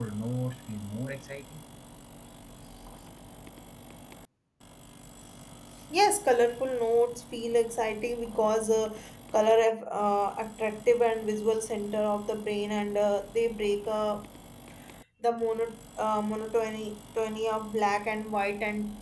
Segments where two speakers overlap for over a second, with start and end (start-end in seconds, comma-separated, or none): none